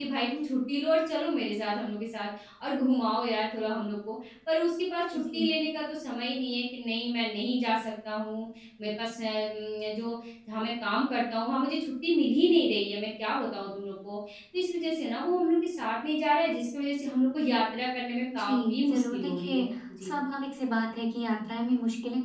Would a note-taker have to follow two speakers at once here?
Yes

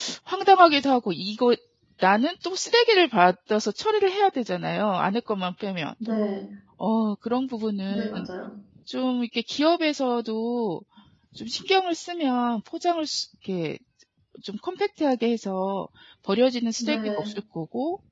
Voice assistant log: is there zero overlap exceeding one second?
Yes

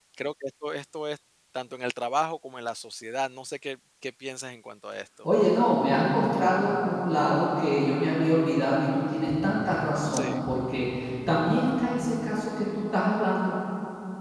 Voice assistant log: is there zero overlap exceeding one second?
Yes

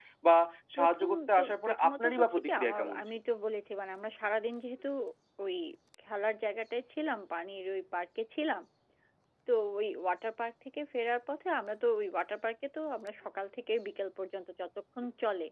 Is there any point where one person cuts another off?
Yes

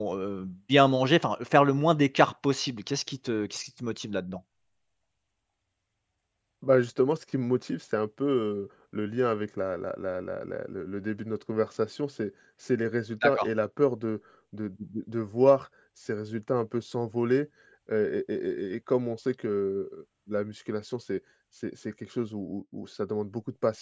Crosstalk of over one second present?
No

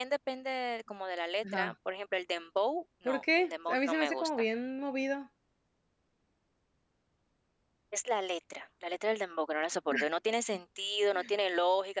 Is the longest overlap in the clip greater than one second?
Yes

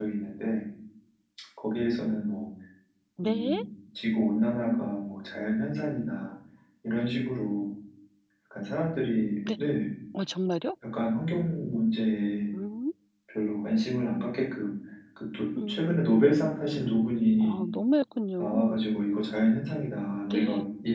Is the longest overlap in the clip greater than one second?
No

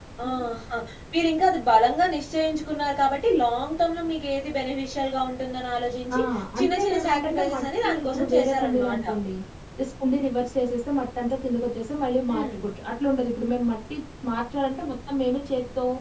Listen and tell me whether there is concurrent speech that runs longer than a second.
Yes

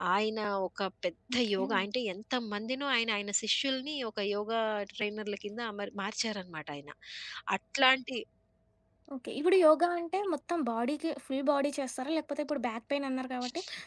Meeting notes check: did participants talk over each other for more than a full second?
No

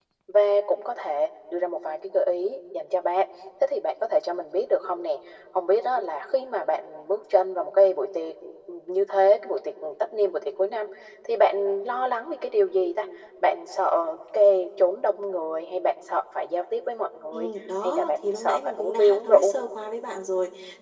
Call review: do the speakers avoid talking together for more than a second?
No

